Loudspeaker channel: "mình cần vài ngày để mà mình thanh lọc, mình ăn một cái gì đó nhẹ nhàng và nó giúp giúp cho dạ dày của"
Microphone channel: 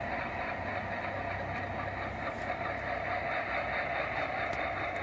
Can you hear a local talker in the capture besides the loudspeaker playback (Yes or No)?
No